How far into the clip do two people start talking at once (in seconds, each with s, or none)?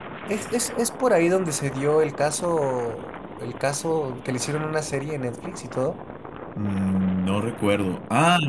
none